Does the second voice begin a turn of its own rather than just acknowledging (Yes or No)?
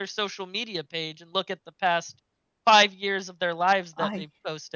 No